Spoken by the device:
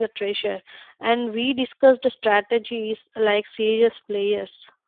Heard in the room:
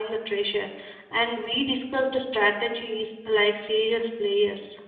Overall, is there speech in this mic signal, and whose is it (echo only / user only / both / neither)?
echo only